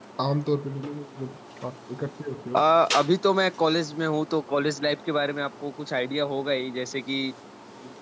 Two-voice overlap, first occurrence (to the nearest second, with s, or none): none